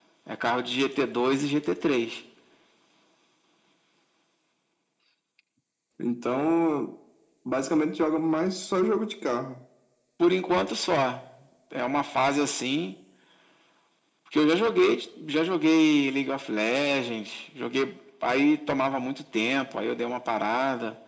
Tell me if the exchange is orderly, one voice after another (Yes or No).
Yes